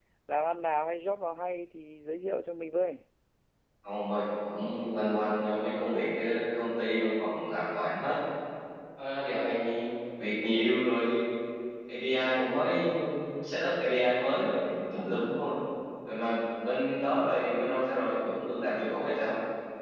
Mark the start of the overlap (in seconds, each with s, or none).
none